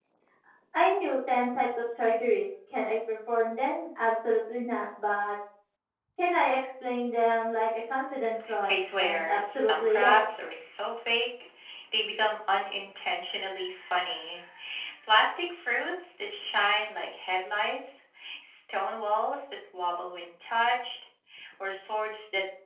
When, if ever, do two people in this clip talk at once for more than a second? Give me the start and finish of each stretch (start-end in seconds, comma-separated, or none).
8.7-10.4